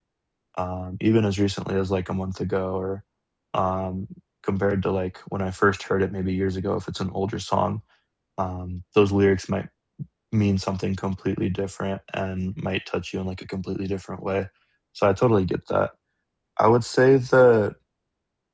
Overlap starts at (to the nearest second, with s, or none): none